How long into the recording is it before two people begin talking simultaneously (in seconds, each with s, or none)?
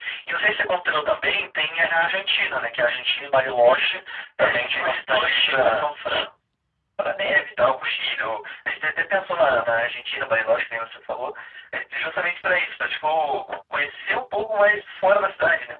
4.4 s